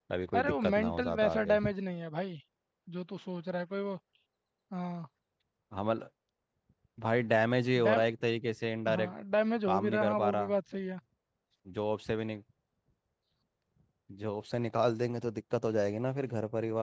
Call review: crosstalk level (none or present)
present